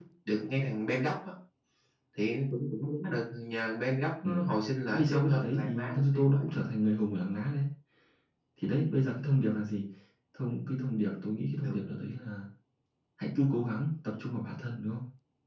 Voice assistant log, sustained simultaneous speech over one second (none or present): present